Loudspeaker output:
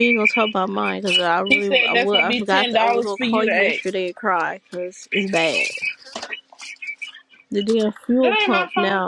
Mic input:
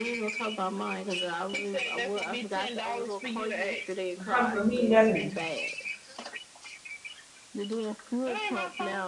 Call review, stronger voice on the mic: user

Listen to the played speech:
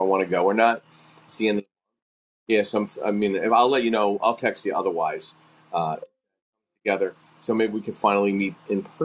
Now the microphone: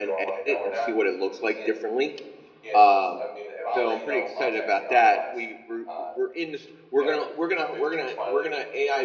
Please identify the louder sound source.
user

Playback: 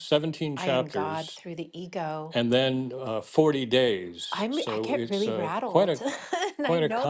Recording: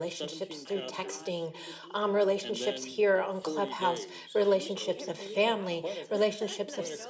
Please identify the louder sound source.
user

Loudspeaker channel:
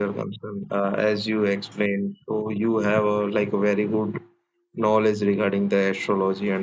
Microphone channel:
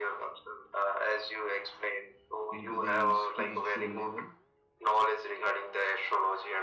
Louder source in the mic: echo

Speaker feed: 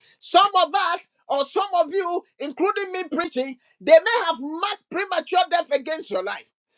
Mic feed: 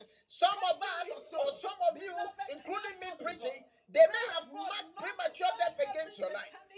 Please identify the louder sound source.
echo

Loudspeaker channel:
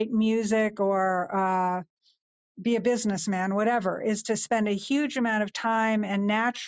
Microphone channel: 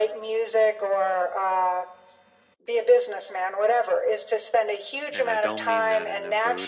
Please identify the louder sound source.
echo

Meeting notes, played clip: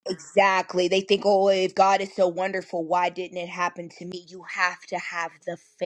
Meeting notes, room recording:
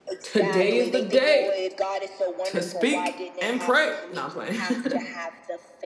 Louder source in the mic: user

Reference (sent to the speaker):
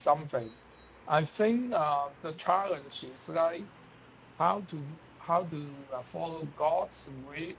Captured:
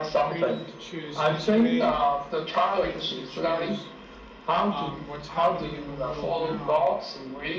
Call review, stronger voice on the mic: echo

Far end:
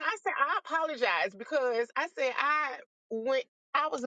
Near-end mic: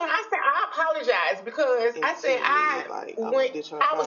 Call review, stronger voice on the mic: echo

